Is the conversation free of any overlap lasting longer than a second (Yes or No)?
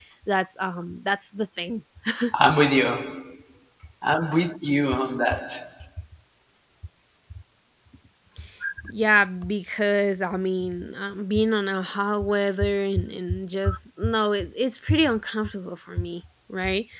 Yes